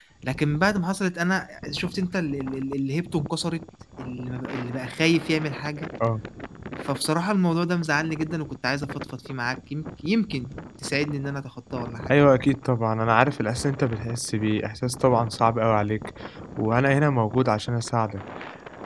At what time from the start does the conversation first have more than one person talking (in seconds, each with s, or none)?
none